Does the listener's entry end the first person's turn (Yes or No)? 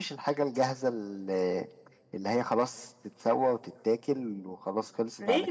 Yes